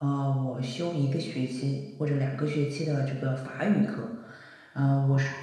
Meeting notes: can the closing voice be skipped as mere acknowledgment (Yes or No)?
Yes